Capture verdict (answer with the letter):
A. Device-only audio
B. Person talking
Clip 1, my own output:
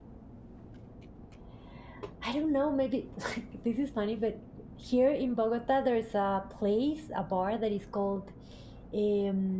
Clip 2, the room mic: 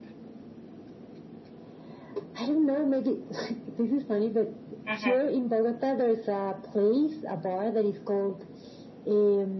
B